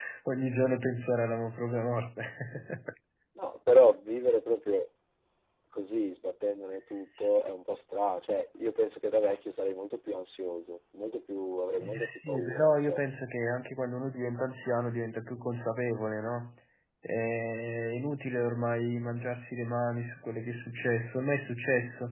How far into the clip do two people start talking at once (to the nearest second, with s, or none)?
12 s